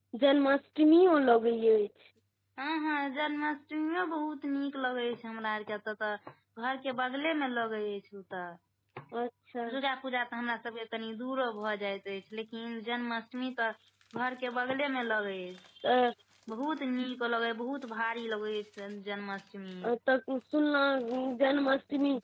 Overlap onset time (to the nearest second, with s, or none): none